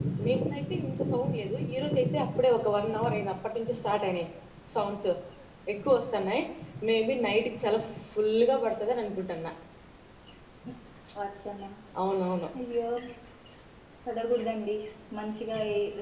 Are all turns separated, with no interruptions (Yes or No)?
Yes